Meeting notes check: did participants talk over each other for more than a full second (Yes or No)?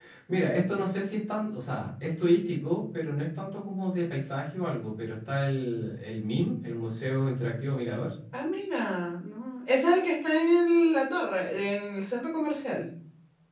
No